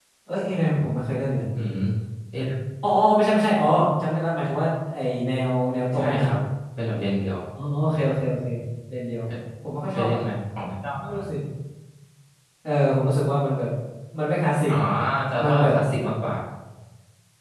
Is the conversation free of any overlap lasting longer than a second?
Yes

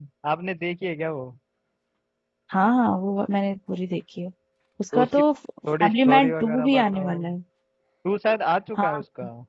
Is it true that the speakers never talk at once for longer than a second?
No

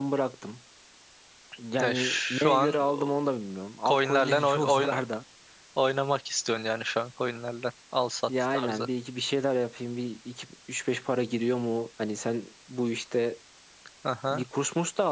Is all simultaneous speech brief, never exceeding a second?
No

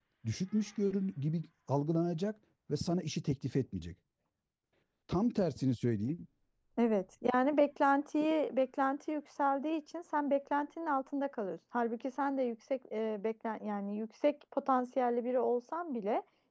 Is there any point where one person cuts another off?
No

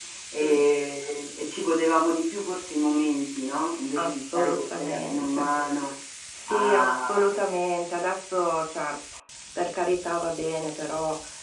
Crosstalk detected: Yes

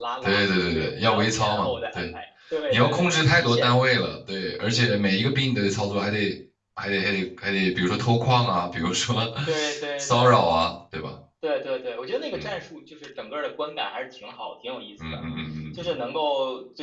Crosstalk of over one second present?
Yes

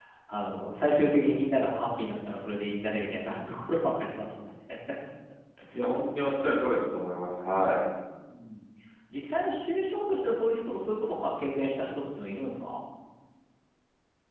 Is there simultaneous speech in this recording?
No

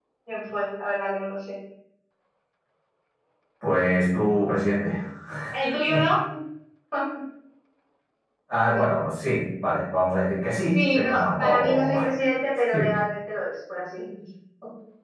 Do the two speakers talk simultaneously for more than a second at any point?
Yes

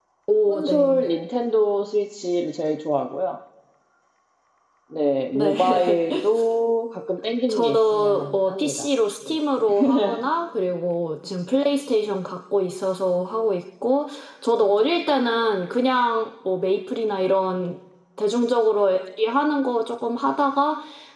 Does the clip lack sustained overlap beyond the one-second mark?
No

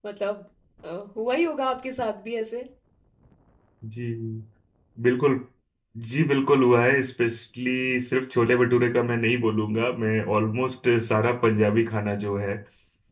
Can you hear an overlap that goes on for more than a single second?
No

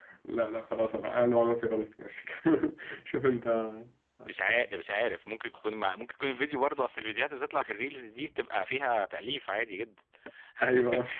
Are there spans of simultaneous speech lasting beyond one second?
No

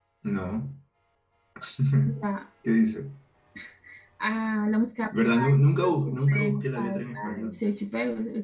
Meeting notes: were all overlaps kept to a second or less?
No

